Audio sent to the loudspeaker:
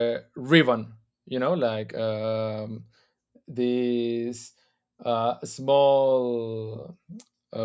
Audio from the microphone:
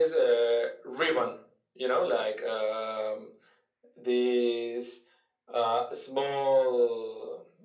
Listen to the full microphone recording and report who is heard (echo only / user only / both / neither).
echo only